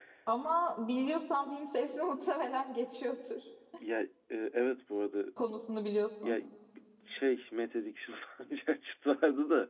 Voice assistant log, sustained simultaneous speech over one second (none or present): none